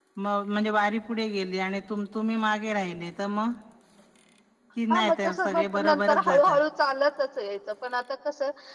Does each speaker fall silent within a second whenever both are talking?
No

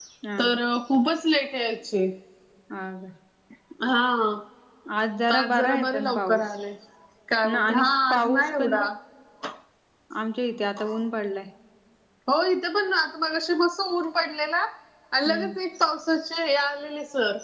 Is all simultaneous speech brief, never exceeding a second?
No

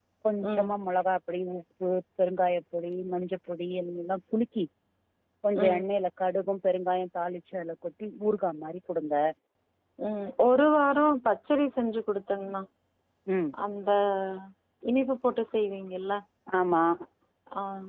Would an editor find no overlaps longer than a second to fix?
Yes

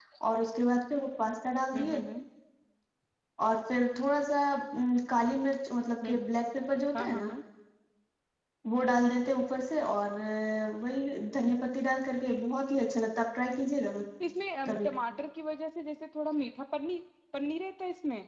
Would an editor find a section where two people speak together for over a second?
No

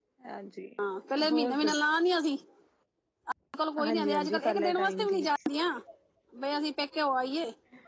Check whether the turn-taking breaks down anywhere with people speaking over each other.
Yes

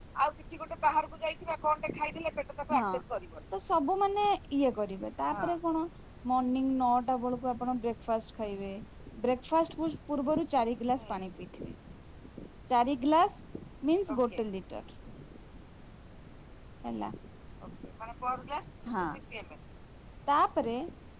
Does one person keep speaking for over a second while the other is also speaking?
No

